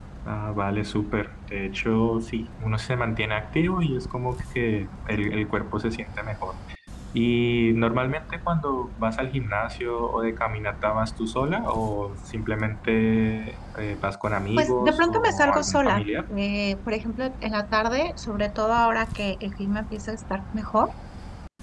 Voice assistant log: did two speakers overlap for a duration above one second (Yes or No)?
Yes